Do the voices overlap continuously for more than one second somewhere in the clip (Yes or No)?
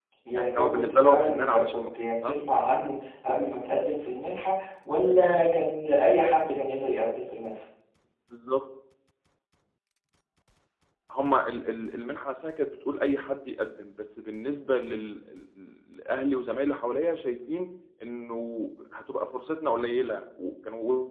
Yes